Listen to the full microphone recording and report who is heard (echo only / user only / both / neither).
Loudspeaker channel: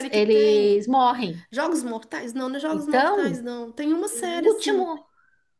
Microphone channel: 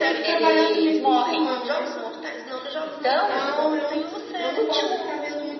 both